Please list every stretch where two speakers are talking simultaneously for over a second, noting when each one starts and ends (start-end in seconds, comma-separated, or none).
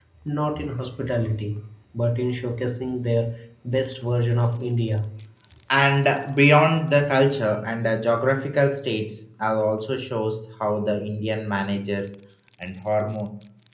none